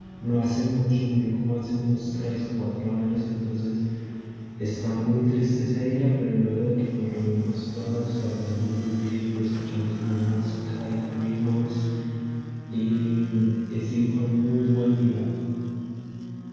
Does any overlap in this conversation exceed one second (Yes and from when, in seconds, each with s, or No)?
No